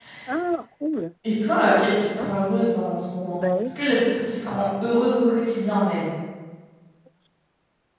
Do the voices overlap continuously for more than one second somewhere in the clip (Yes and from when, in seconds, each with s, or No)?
No